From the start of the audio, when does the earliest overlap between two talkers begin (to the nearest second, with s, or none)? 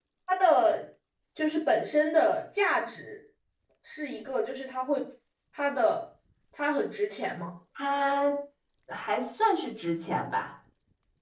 none